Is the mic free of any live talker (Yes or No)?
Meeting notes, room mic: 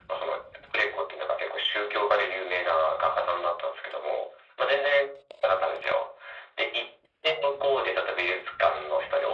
Yes